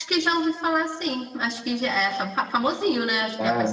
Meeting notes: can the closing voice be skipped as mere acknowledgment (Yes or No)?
No